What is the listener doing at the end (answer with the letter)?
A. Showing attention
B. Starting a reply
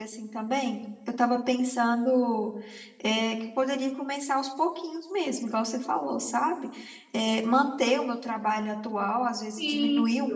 A